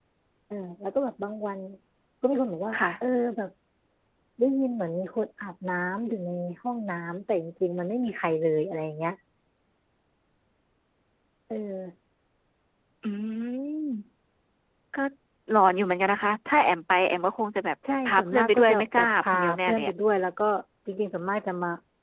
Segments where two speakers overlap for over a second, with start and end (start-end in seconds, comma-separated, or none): 18.1-19.9